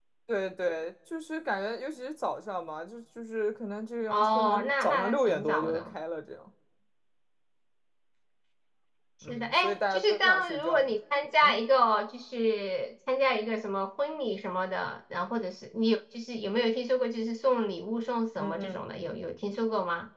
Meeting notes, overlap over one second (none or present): present